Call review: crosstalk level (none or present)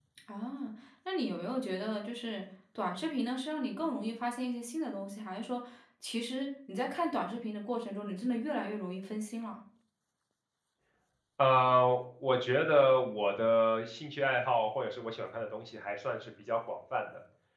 none